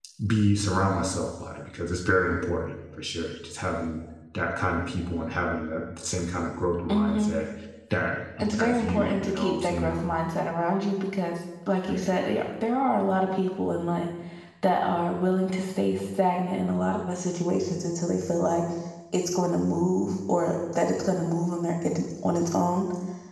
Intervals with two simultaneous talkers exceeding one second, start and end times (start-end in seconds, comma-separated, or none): 8.4-10.0